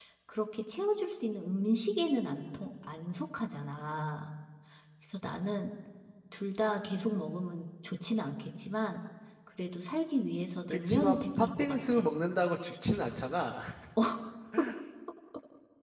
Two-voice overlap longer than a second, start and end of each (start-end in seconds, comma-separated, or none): 10.7-12.0